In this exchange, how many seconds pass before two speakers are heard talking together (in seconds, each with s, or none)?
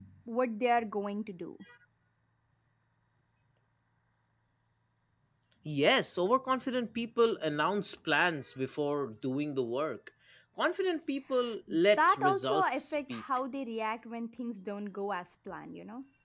12.0 s